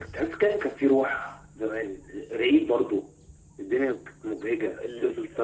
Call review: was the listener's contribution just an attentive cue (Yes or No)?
No